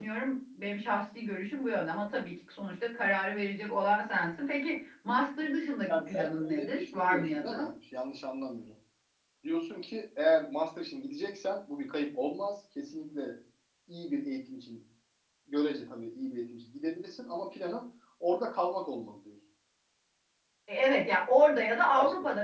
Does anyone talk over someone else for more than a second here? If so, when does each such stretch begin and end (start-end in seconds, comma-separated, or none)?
5.9-7.7